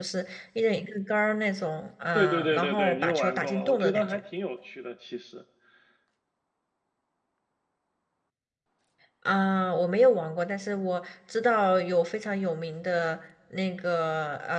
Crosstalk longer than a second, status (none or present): present